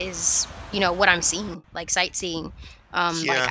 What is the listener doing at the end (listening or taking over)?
listening